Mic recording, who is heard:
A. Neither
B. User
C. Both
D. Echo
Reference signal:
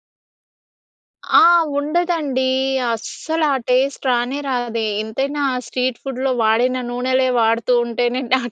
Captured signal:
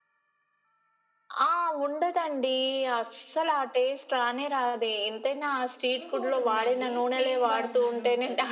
C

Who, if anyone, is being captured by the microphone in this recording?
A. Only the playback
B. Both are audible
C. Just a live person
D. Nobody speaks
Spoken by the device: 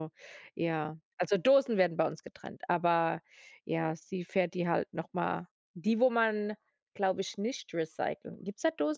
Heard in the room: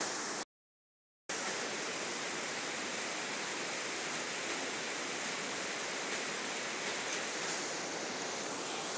D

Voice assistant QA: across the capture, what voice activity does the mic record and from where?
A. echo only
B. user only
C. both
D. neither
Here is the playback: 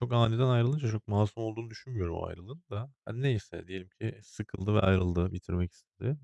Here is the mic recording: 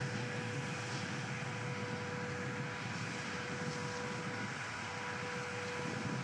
D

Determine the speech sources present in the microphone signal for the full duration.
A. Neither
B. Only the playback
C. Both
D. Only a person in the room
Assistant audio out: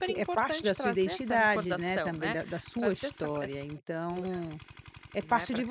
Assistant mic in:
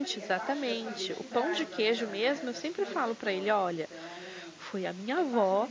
C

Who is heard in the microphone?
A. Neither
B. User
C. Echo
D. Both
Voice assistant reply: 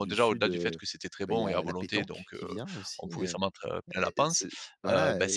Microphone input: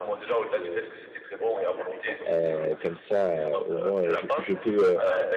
D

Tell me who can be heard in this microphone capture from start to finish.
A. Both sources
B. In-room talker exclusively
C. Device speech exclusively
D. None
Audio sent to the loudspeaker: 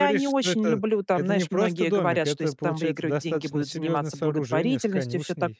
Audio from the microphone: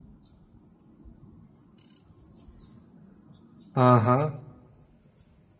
B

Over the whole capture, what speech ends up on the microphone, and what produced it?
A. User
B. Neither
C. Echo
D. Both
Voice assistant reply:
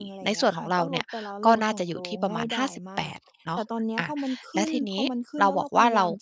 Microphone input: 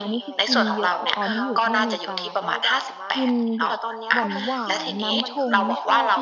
D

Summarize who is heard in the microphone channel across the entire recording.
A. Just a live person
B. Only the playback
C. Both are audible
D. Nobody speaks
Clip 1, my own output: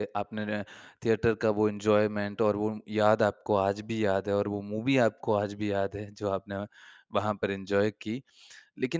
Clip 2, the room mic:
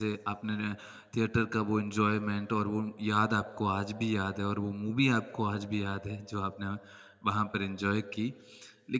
B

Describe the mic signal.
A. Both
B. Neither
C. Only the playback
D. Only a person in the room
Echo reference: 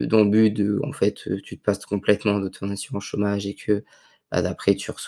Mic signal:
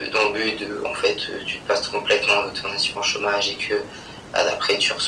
C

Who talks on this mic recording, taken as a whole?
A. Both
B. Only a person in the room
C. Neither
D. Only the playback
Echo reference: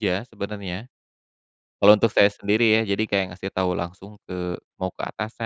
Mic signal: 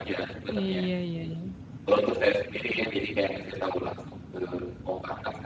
A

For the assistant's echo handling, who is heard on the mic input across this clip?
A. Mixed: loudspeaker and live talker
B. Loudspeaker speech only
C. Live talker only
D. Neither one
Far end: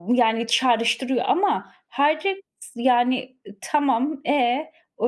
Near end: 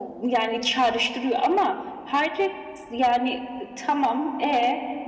B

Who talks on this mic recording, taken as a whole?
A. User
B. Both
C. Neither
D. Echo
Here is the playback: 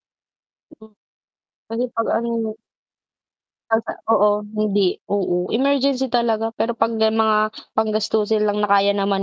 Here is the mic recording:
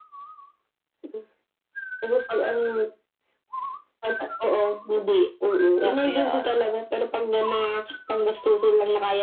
B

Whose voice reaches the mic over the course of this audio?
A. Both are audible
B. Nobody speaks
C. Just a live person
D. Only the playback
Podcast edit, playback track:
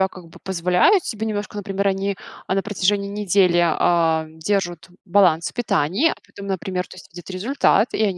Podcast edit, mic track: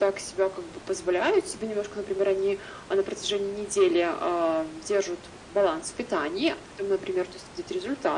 D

